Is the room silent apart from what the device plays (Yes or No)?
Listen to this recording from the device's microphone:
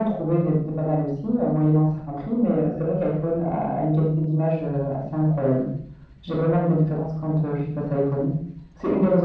Yes